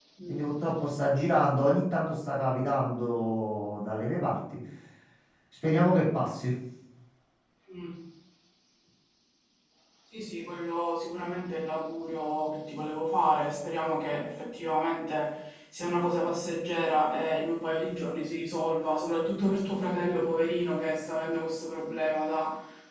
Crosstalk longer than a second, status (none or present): none